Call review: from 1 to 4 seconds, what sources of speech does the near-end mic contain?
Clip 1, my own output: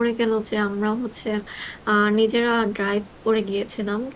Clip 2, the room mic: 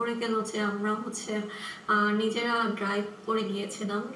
echo only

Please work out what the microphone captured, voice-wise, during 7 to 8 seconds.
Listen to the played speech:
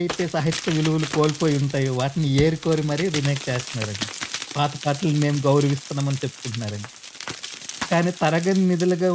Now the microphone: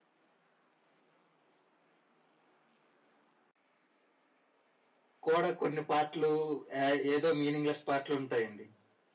user only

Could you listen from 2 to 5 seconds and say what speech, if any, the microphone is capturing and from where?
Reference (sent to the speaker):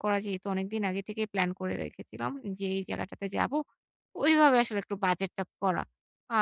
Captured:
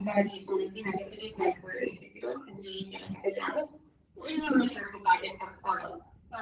echo only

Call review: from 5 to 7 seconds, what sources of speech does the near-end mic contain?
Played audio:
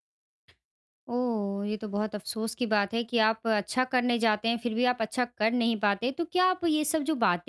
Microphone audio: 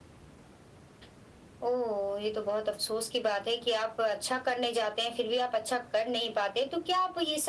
echo only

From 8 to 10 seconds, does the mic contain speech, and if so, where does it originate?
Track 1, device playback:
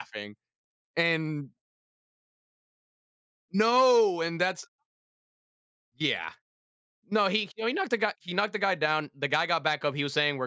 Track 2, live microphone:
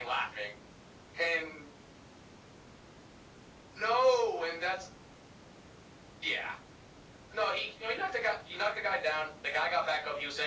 echo only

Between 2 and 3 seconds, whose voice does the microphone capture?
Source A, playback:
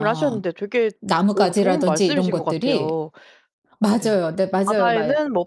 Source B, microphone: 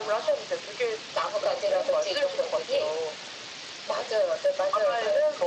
echo only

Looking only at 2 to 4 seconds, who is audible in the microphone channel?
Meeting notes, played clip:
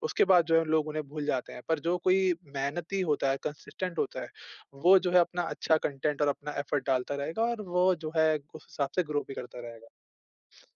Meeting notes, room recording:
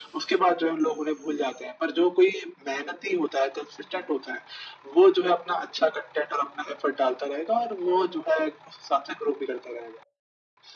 echo only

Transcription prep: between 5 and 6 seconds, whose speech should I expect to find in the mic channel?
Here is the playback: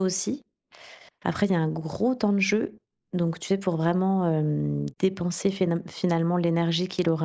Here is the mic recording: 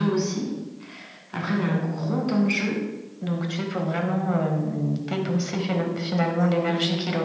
both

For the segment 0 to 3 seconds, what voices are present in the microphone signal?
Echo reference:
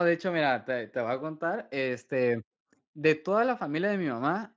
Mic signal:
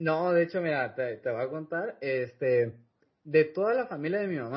echo only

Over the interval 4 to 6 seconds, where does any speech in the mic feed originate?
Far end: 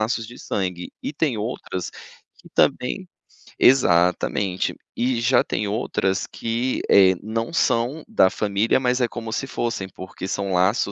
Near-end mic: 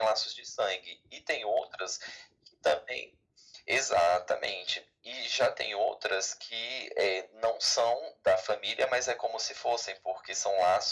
echo only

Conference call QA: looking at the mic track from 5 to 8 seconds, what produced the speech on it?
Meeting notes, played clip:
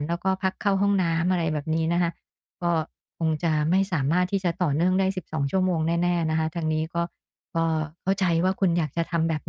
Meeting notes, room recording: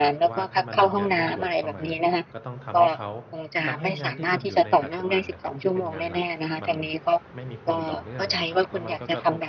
both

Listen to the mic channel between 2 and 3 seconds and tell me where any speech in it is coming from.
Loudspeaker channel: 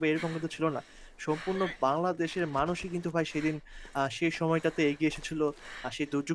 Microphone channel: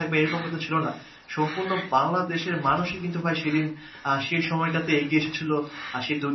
echo only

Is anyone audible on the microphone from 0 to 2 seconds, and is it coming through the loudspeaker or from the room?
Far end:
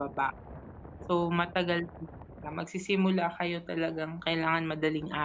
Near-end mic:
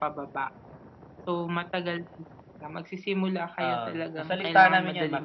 echo only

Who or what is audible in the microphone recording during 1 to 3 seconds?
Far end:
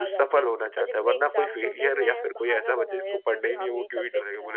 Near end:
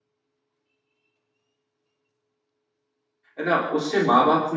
neither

